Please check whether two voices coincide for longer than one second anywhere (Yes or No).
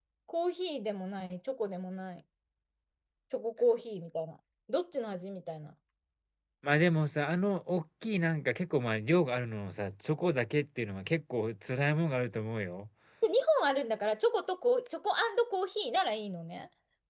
No